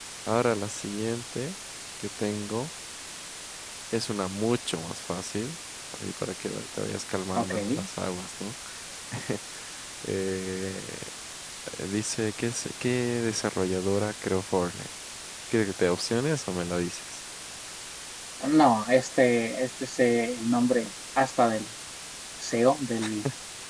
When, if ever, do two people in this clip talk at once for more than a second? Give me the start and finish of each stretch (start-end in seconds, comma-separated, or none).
none